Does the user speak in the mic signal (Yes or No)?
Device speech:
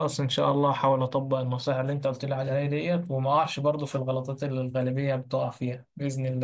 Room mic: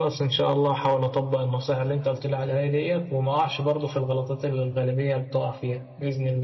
No